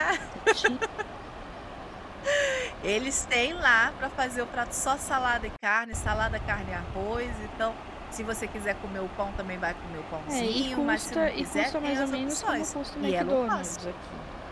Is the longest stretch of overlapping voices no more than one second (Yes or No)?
No